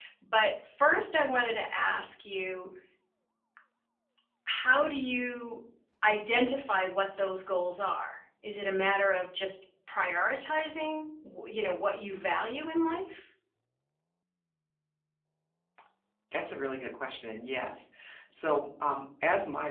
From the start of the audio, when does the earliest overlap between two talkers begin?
none

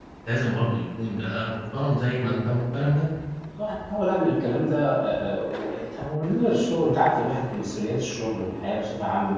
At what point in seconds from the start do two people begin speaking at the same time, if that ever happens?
none

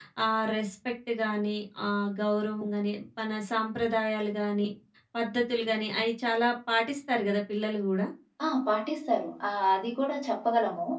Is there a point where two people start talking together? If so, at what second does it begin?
none

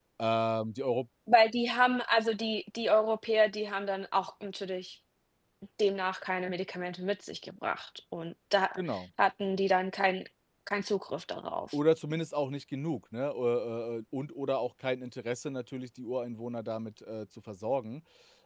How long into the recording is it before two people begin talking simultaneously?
none

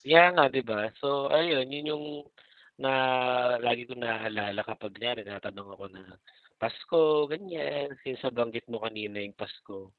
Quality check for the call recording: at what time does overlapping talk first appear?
none

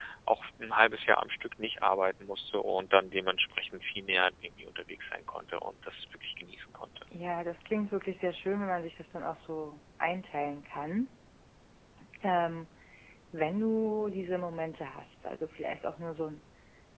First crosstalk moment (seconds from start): none

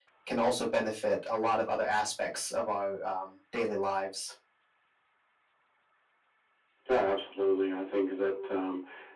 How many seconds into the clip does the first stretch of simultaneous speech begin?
none

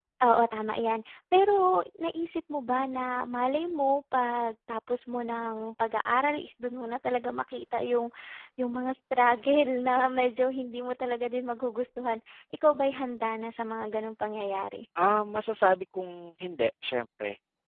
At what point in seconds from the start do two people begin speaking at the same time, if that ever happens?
none

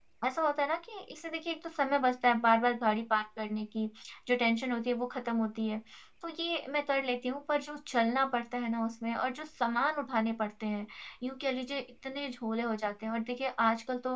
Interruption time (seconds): none

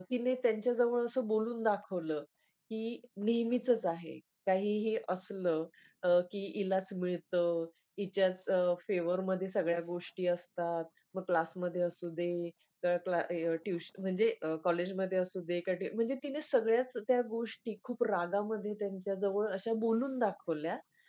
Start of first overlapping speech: none

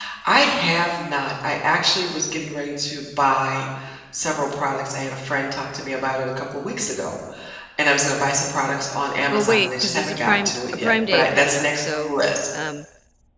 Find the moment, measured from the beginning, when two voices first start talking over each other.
9.3 s

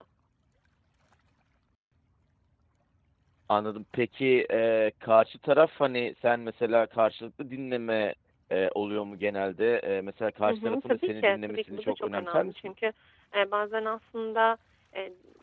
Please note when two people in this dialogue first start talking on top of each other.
10.4 s

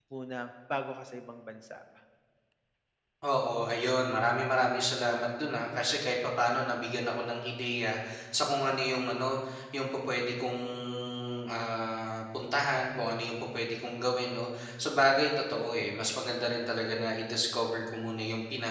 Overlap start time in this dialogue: none

